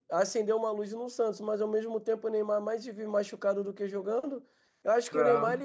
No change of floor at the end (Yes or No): Yes